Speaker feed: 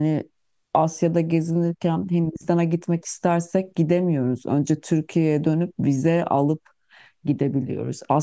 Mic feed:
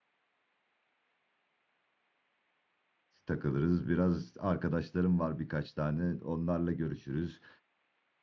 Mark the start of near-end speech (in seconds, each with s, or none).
3.2 s